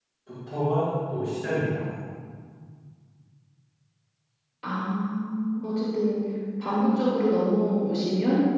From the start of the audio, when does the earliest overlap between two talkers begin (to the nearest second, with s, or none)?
none